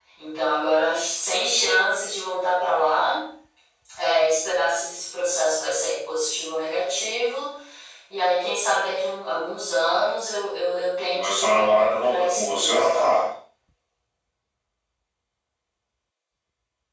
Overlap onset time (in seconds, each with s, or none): 11.1 s